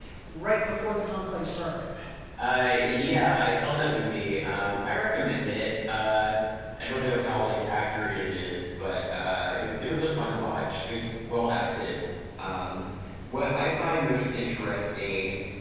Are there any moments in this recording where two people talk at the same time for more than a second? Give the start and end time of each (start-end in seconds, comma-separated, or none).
none